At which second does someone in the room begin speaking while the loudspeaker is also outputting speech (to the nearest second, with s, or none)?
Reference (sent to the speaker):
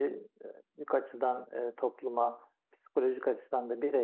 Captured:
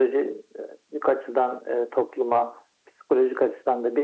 none